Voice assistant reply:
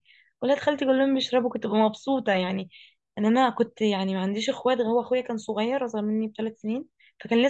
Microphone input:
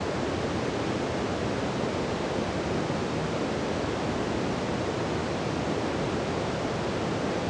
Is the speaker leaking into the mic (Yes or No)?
No